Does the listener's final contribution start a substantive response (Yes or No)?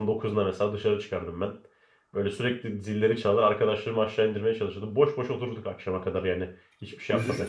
Yes